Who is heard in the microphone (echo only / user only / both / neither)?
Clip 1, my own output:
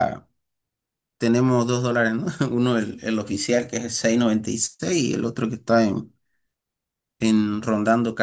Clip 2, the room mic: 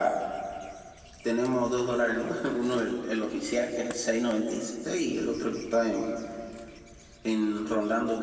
echo only